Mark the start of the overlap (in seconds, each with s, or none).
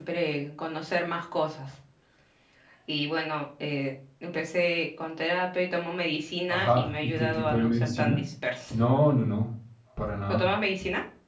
6.5 s